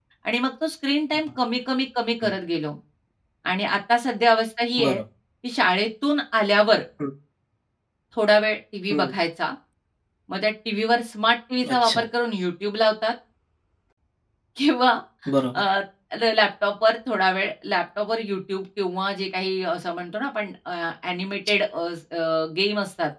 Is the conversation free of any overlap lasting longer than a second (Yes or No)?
Yes